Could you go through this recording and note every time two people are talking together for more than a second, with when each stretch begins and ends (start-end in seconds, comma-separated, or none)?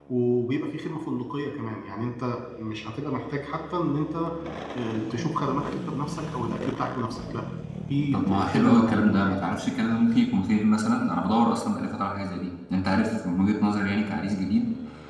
8.1-9.4